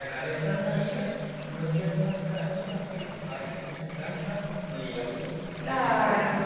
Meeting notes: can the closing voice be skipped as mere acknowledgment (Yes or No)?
No